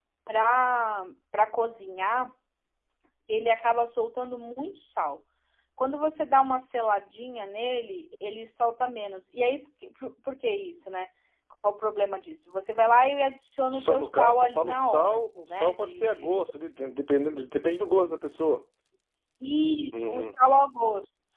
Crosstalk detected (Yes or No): Yes